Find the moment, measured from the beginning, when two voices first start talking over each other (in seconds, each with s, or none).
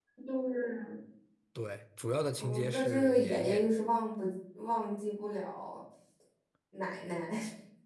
2.4 s